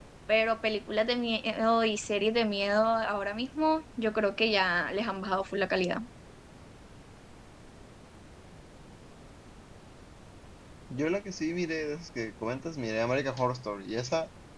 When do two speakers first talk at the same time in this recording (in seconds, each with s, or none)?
none